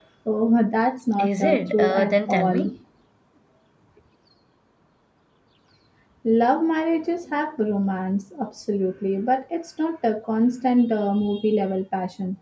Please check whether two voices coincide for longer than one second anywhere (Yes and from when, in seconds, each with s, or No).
Yes, from 1.2 s